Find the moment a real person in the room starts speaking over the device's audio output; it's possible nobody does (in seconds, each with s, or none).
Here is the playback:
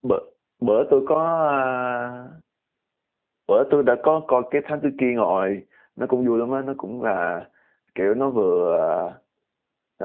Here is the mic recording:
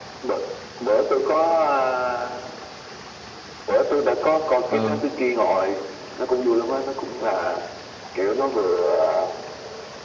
4.7 s